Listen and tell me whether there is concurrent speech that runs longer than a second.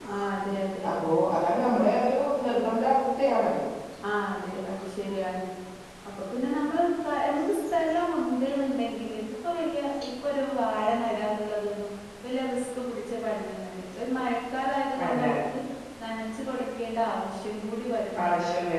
No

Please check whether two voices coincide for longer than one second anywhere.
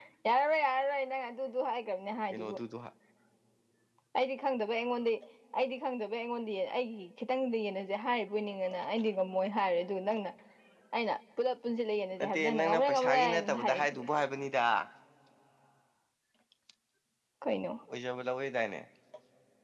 Yes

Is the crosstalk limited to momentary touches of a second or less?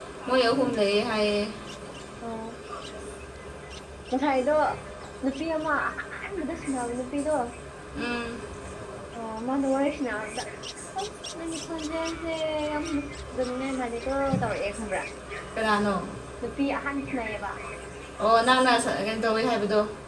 Yes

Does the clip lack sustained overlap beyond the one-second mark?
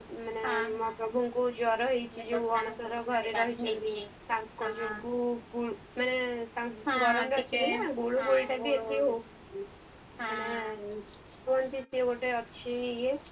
No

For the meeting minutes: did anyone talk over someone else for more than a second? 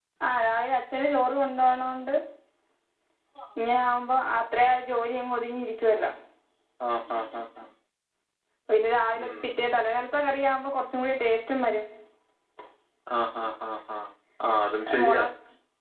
No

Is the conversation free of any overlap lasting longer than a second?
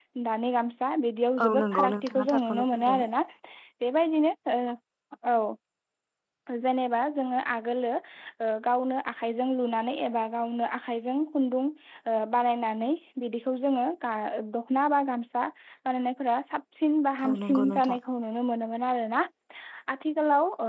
No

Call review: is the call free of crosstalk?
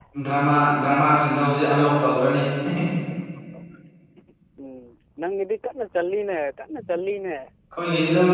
Yes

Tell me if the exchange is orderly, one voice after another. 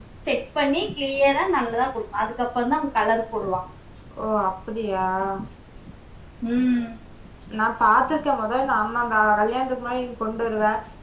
Yes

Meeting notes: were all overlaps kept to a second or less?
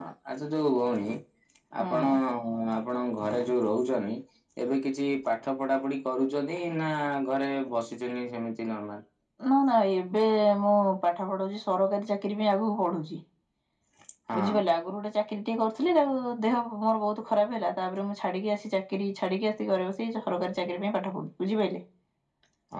Yes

